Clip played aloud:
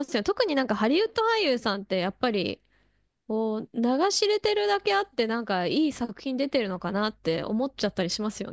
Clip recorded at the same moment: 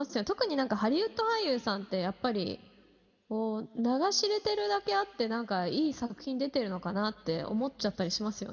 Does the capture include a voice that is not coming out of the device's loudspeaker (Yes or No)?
No